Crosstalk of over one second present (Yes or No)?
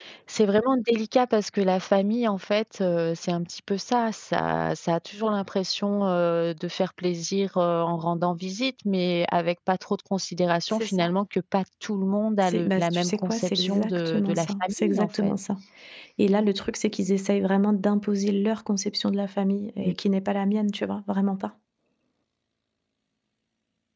Yes